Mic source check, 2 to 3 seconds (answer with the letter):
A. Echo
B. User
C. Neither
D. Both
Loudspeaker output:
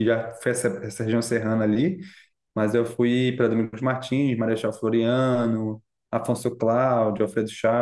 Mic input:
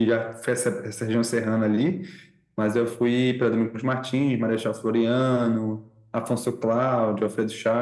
A